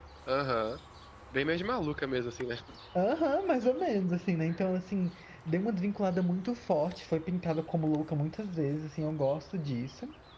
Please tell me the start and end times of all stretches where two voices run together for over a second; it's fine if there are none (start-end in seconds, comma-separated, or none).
none